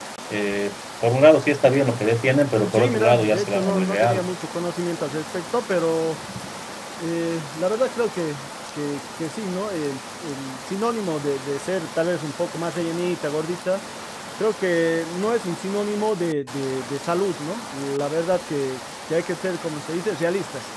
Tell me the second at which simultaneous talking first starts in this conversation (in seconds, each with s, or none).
2.7 s